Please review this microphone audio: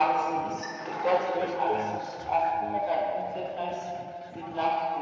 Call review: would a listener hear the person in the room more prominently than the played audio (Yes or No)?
No